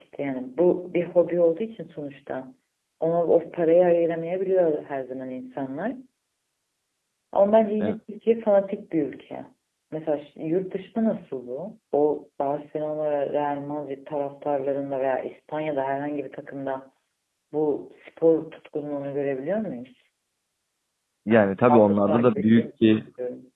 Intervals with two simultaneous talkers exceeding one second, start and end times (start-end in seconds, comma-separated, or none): 21.7-23.0